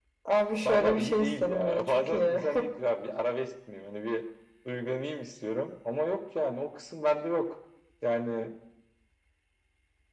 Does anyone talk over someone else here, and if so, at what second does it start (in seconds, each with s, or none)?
0.6 s